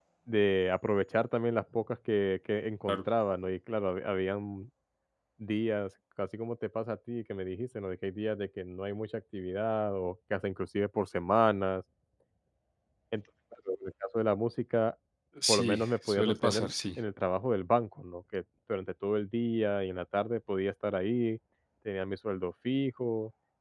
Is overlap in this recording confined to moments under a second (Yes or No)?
No